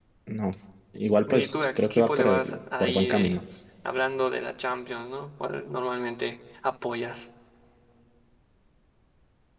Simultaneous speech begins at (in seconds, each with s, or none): 1.3 s